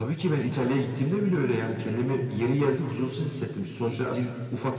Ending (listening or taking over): listening